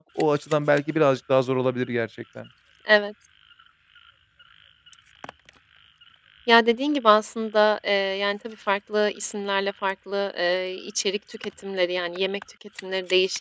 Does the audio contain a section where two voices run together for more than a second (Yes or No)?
No